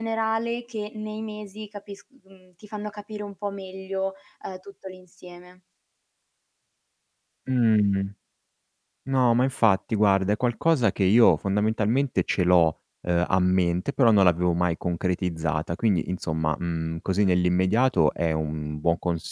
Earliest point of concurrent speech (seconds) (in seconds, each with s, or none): none